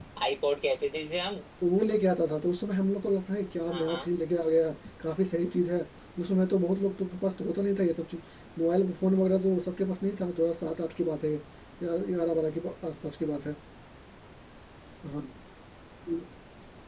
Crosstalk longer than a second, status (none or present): none